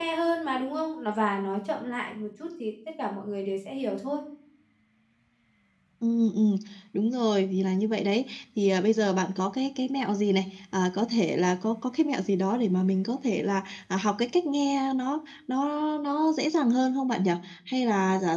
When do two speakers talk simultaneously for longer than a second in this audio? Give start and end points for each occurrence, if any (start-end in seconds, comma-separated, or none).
none